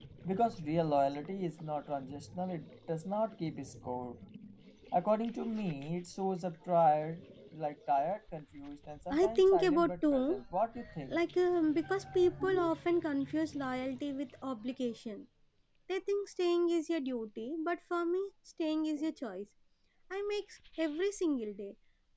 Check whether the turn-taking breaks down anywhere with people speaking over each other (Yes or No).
Yes